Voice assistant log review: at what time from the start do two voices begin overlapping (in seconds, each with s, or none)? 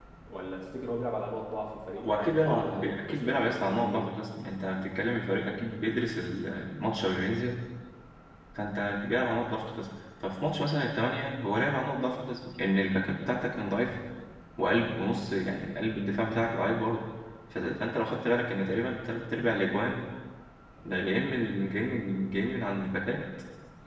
2.0 s